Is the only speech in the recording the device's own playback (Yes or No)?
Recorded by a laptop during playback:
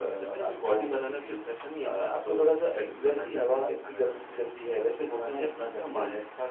Yes